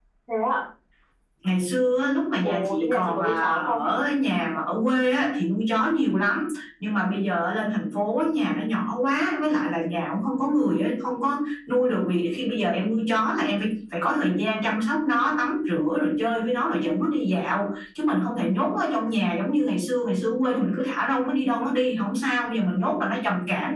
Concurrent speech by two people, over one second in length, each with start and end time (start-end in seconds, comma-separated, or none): 2.4-3.9